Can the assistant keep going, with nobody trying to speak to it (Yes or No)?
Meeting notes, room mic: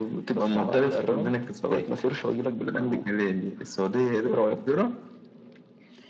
Yes